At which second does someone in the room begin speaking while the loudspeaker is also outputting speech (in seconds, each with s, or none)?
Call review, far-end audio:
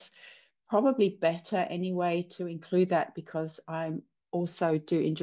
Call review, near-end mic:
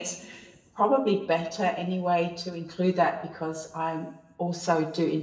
none